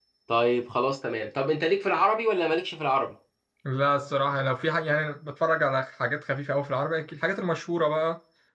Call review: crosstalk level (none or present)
none